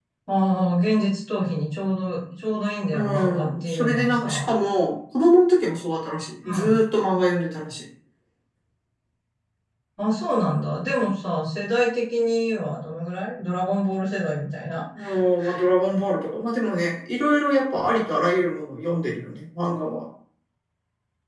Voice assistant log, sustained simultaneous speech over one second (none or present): present